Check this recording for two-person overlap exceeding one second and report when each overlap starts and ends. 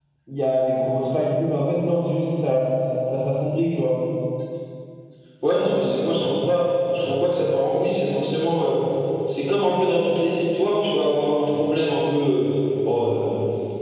none

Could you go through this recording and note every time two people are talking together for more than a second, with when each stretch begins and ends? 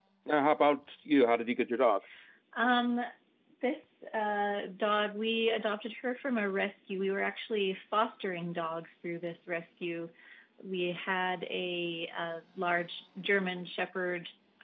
none

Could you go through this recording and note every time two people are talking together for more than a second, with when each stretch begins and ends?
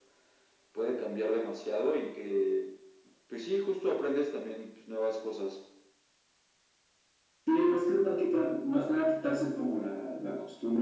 none

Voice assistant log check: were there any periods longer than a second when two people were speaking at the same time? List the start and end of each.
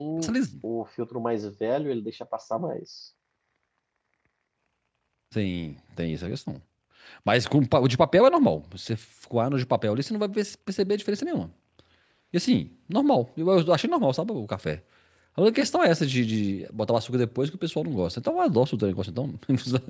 none

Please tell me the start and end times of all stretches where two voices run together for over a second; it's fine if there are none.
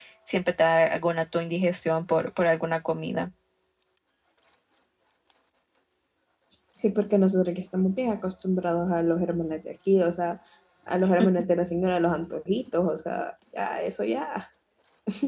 none

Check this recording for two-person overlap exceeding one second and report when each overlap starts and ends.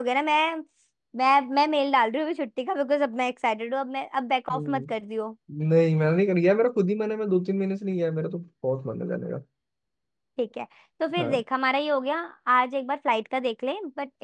none

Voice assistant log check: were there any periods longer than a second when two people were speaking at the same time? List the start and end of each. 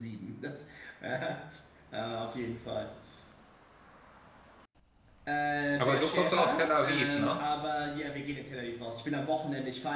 5.8-7.4

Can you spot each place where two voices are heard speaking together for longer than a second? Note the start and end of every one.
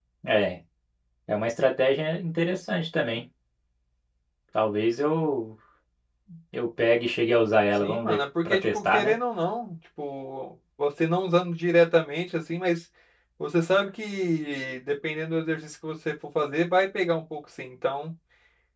7.8-9.1

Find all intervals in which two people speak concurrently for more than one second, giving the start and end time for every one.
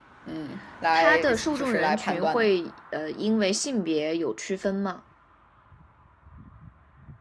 0.9-2.5

